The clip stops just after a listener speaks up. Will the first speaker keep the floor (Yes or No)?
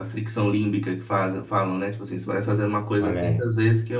Yes